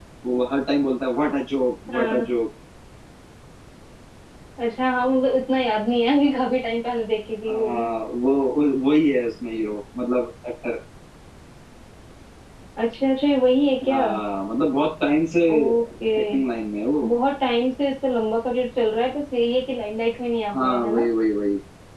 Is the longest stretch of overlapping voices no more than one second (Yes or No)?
Yes